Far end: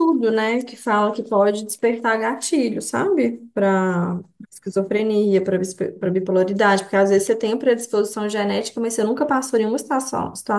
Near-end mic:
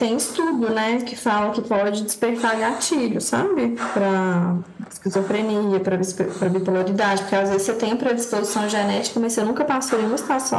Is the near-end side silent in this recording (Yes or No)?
Yes